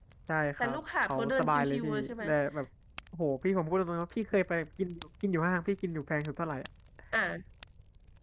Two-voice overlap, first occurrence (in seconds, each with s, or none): 0.6 s